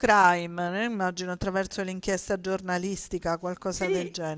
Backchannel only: No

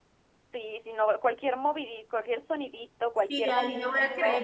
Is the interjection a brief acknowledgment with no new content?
No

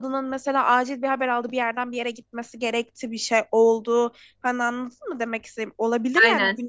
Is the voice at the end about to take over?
No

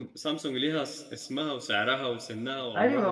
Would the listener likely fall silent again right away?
No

